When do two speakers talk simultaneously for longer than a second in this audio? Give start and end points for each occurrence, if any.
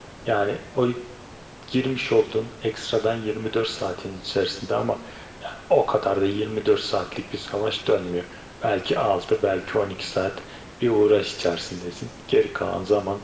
none

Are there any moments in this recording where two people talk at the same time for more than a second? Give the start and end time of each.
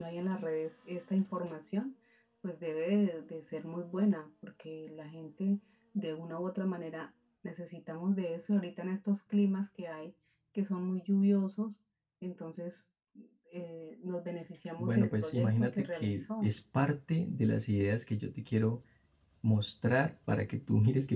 14.8-16.5

